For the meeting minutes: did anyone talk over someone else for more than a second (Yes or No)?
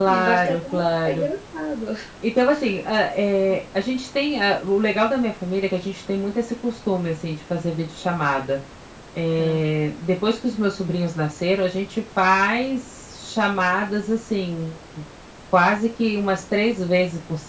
Yes